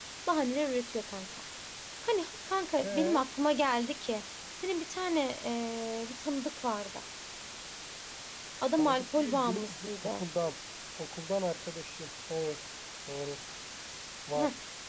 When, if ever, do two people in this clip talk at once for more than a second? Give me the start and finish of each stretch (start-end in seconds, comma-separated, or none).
8.8-10.2